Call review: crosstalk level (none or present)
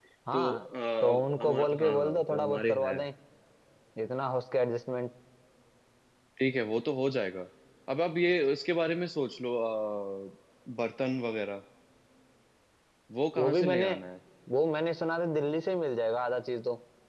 present